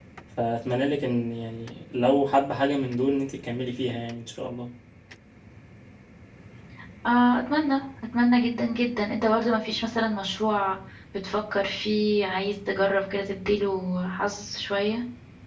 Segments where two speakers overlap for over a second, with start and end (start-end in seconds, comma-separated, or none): none